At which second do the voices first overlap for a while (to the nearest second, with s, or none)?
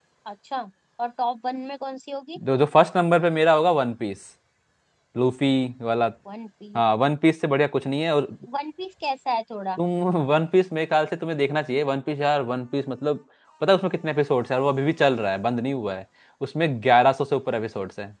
none